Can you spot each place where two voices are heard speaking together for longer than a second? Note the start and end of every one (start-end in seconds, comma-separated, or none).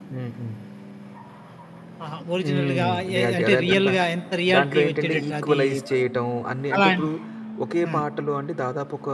2.4-3.9, 4.5-6.0